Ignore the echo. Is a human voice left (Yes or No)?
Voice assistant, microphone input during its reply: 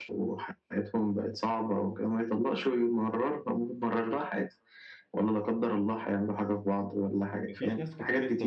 Yes